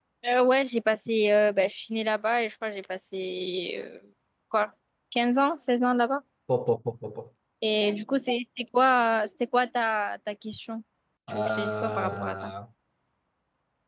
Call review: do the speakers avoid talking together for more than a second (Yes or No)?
No